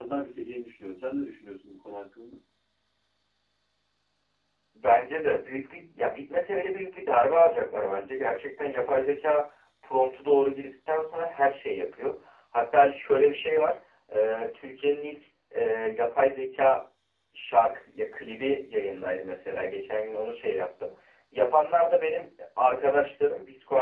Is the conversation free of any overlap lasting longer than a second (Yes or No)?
Yes